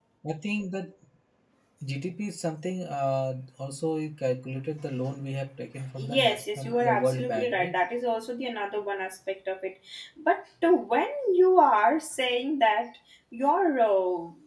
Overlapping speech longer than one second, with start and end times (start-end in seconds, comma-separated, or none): 6.0-7.8